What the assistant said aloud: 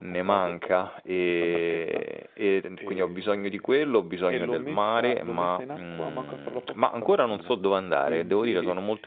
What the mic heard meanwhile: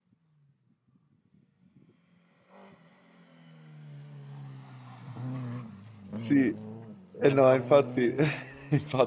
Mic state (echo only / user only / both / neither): user only